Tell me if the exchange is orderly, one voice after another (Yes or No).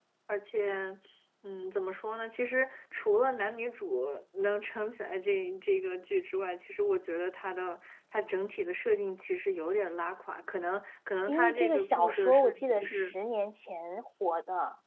No